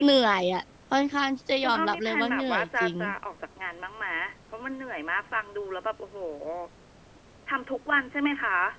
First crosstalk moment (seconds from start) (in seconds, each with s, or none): 1.6 s